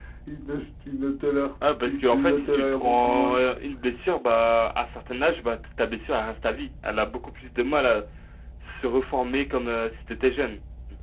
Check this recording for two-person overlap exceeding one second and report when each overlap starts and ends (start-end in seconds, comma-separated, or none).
1.9-3.4